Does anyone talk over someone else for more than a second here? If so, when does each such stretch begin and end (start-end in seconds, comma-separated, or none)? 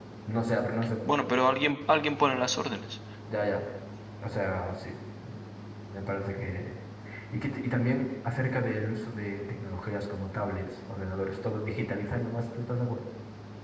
none